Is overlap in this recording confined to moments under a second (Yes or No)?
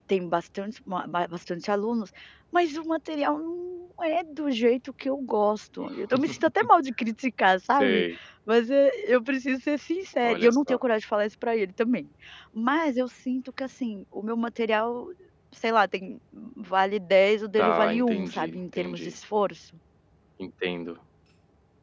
No